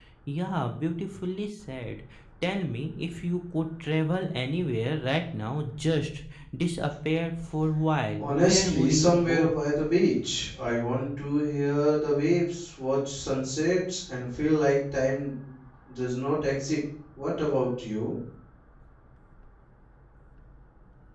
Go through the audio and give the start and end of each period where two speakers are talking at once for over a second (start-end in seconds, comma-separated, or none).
8.2-9.5